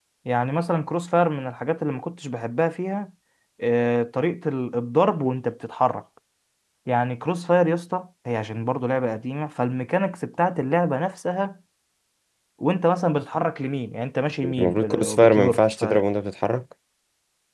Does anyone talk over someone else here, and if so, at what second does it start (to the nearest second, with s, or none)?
14 s